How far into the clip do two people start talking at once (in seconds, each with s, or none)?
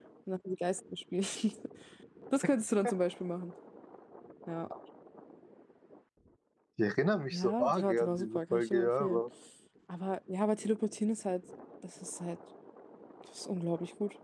7.3 s